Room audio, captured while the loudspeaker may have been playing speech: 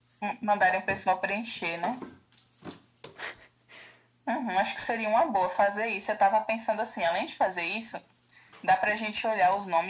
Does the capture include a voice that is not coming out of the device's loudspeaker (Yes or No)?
No